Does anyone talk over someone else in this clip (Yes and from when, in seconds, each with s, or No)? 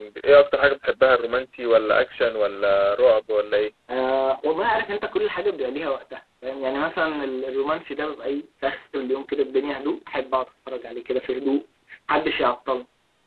No